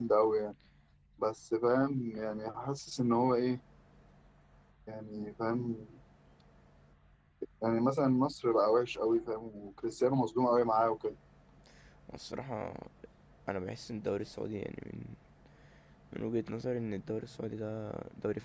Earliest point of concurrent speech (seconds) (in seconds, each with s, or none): none